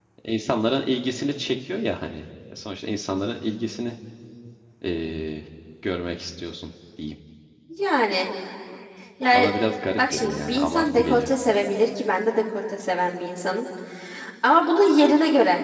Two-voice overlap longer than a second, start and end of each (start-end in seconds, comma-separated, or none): 10.0-11.3